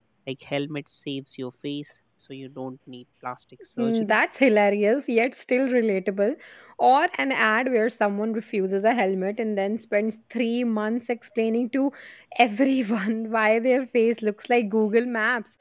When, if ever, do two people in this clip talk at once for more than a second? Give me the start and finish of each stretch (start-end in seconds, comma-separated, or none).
none